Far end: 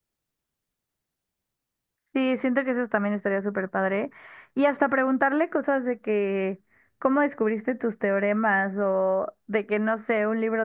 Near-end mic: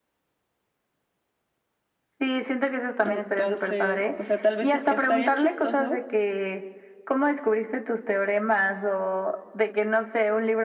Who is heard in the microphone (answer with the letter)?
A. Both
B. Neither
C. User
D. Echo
A